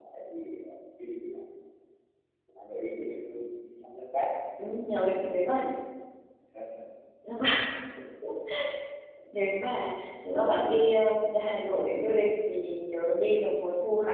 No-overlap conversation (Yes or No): Yes